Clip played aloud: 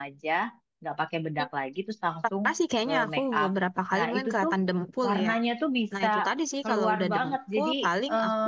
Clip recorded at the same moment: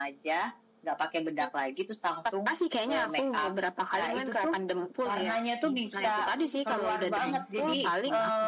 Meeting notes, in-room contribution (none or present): present